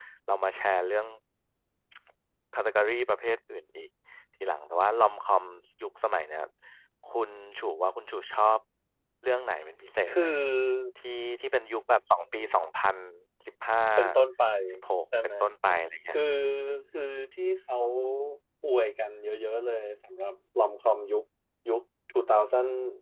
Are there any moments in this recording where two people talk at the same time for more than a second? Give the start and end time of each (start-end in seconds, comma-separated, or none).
none